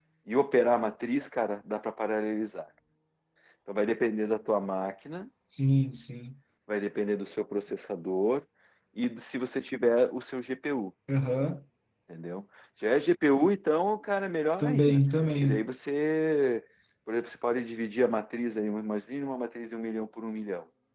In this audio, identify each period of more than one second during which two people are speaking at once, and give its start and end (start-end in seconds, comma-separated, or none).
none